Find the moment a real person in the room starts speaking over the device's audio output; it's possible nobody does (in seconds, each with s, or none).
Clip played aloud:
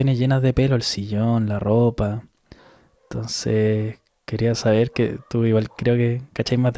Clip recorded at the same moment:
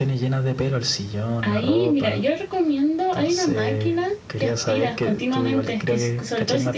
1.4 s